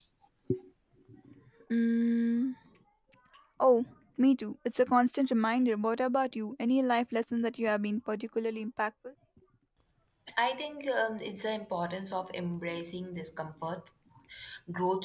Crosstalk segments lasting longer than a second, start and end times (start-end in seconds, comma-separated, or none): none